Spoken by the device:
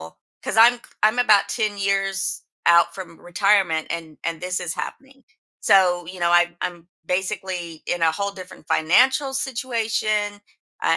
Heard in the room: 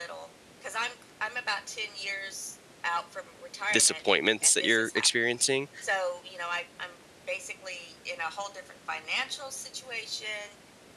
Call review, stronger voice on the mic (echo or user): user